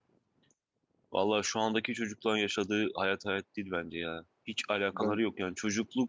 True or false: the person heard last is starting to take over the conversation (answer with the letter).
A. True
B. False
B